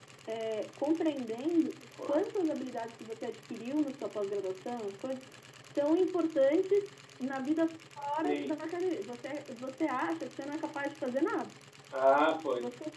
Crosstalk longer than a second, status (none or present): none